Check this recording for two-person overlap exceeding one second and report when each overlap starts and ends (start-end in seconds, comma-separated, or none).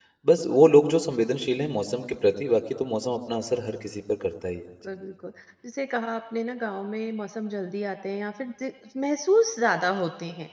none